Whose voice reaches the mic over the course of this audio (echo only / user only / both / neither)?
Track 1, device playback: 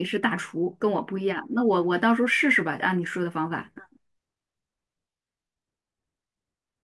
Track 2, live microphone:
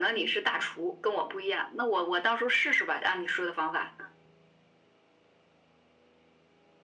echo only